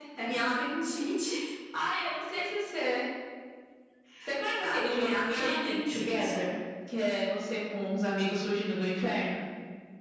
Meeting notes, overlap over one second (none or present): present